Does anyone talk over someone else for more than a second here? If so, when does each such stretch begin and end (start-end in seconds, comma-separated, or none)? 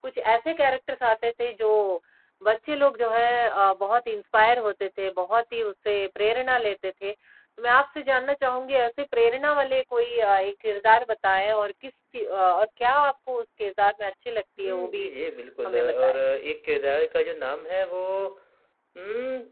none